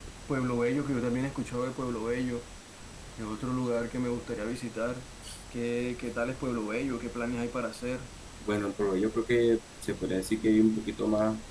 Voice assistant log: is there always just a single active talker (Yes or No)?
Yes